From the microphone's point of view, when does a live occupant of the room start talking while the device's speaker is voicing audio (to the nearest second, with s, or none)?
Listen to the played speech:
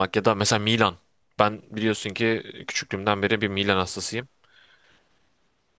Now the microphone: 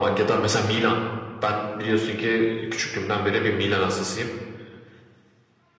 none